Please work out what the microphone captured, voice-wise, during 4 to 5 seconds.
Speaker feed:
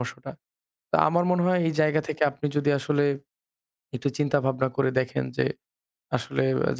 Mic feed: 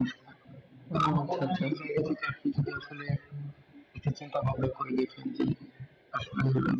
echo only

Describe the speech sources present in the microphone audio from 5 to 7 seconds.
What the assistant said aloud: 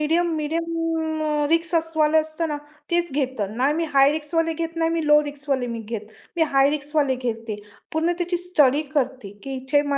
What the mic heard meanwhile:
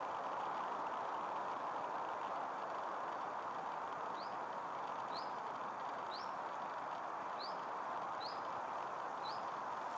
neither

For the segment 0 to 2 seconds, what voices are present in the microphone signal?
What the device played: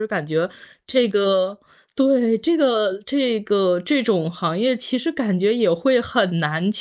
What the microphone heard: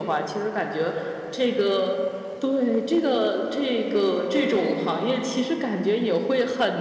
echo only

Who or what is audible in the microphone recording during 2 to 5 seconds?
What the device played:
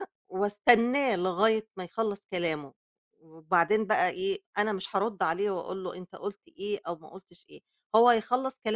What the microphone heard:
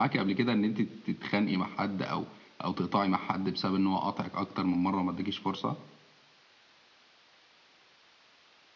user only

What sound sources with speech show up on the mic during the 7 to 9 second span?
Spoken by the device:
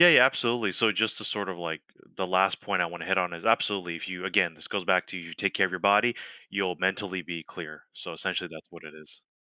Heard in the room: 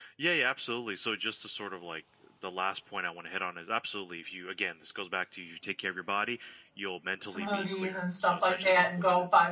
both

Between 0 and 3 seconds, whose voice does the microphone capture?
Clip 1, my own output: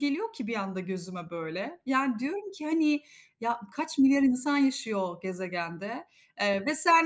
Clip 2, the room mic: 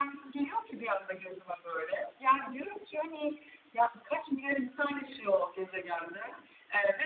echo only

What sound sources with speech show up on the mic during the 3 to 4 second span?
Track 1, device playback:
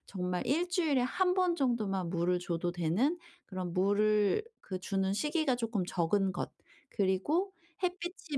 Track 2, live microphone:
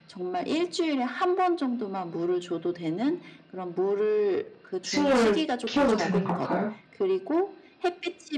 echo only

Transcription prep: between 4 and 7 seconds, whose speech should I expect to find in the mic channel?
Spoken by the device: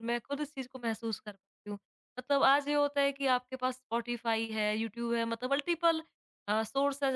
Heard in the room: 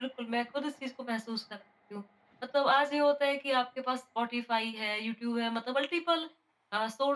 echo only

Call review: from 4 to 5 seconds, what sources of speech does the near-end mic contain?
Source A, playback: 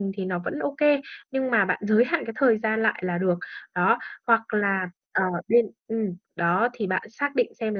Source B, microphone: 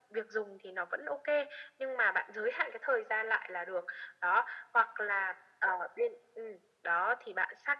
echo only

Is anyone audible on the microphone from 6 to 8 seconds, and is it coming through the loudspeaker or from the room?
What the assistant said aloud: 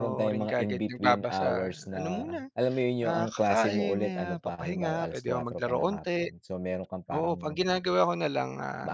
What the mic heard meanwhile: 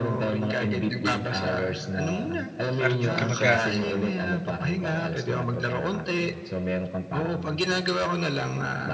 echo only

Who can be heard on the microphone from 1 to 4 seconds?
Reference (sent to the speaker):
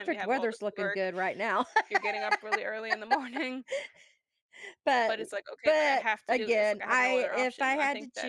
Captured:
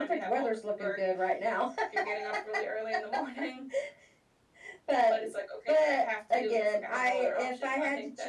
echo only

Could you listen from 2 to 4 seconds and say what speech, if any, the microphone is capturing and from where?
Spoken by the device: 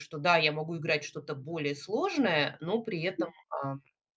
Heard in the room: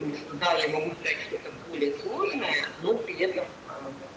echo only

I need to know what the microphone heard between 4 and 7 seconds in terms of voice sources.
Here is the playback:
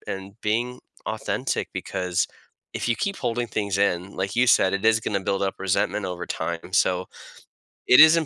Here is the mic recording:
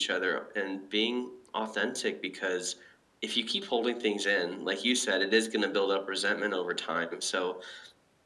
echo only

